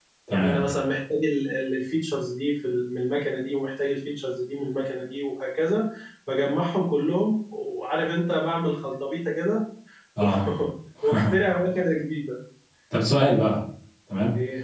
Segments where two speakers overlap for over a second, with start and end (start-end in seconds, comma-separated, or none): none